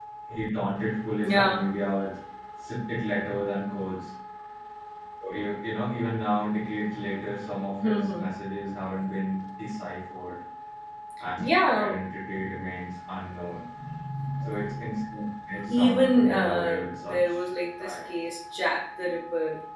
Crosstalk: present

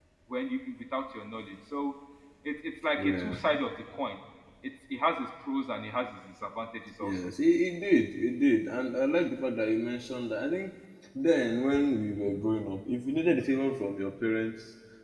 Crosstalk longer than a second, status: none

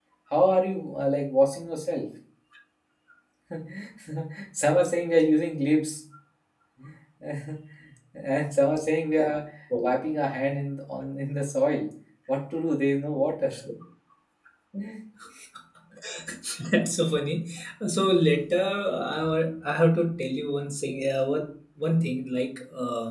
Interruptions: none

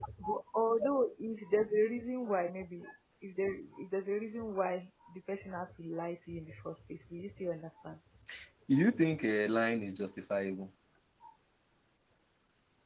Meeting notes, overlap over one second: none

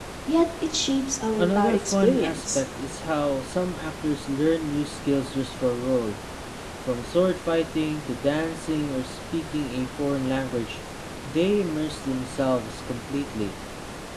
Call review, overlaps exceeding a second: present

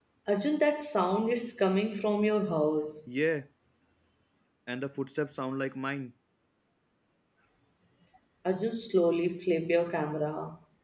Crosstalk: none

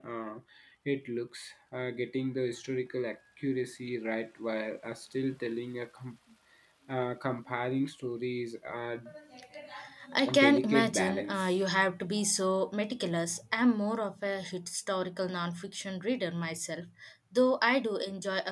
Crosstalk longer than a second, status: present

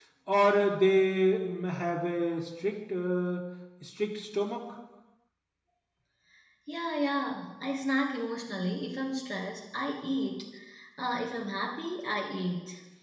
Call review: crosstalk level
none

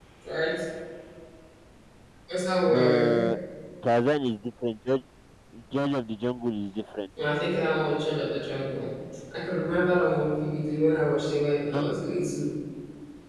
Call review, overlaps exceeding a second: none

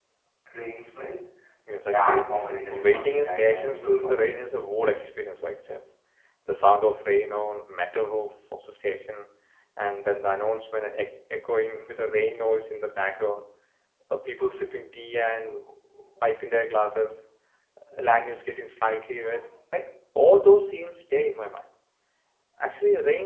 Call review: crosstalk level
present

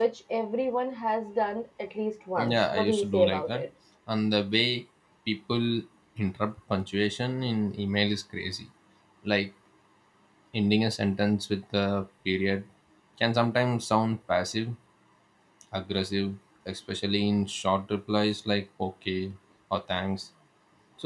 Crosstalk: present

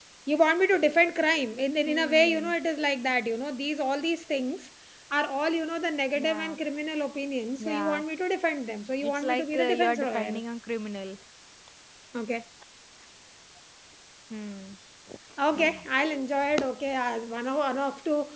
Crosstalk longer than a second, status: present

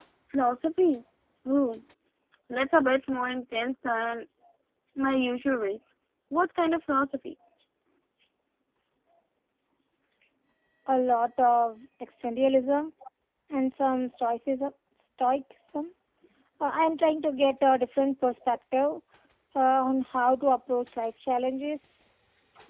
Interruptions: none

